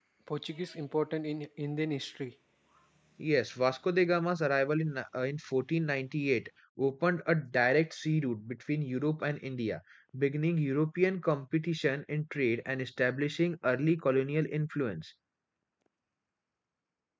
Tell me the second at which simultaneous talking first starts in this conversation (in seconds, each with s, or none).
none